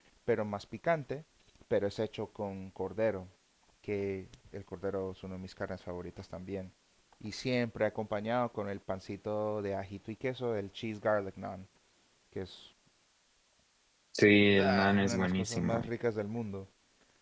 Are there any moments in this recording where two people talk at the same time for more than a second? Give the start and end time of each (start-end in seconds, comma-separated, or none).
14.6-15.9